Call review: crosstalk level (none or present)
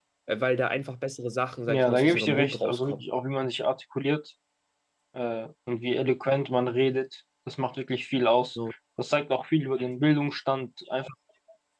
present